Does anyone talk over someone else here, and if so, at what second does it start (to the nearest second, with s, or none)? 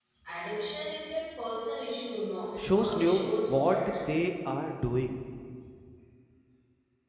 3 s